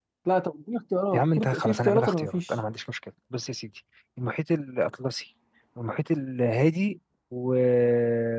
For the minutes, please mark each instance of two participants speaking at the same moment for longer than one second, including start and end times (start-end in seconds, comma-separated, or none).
1.1-2.5